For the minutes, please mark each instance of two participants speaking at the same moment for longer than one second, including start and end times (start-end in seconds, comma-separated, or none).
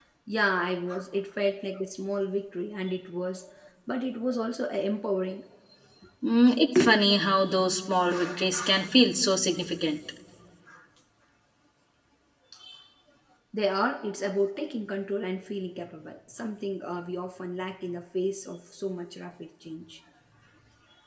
none